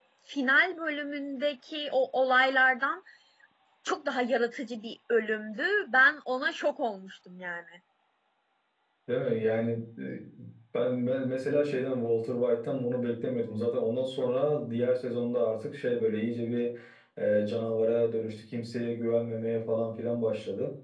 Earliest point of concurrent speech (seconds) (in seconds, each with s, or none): none